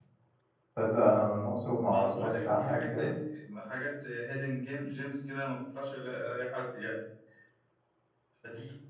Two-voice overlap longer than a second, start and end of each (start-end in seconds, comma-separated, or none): 1.9-3.1